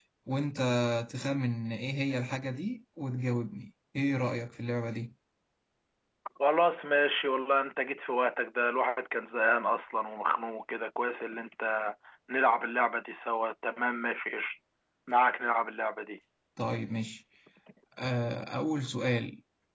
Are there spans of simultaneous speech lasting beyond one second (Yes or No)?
No